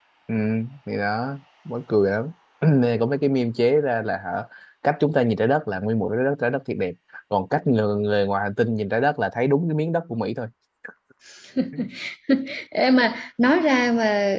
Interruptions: none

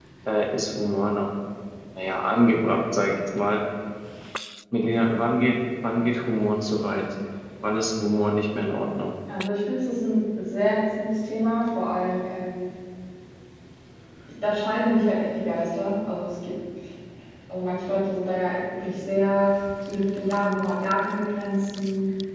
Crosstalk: none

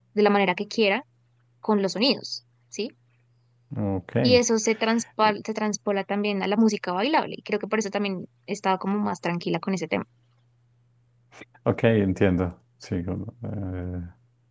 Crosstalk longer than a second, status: none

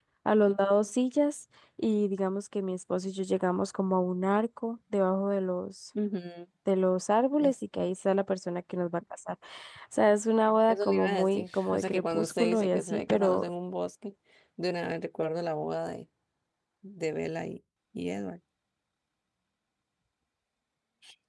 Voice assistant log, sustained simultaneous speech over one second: present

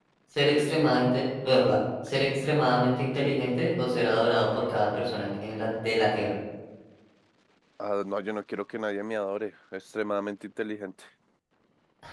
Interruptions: none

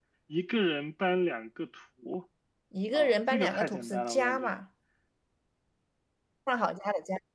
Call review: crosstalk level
present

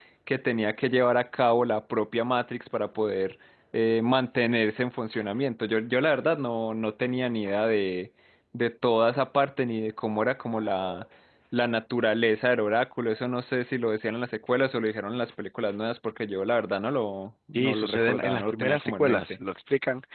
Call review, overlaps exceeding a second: present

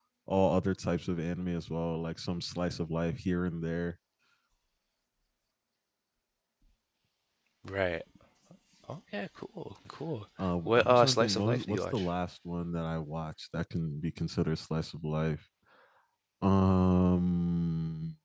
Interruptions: present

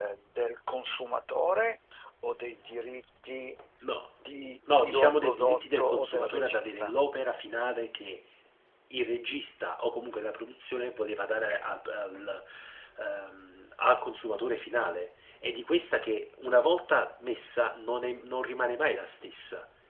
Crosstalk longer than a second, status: present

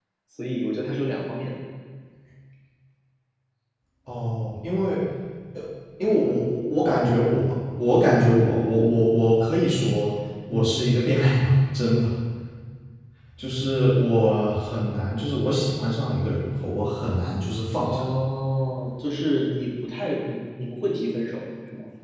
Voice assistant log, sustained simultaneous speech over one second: none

